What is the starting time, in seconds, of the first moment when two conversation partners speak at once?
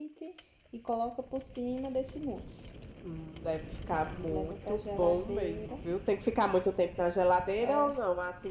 4.0 s

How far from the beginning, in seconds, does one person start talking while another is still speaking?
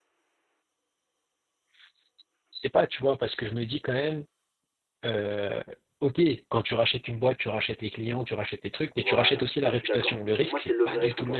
9.0 s

